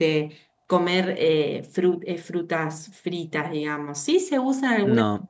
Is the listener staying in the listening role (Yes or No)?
Yes